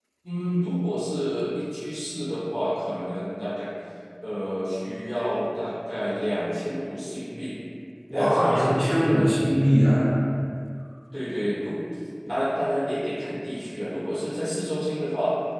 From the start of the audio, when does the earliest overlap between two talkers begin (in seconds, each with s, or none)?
8.1 s